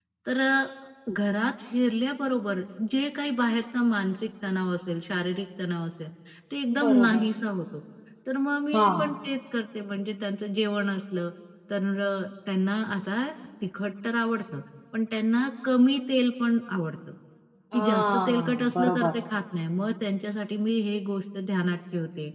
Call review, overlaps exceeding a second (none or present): present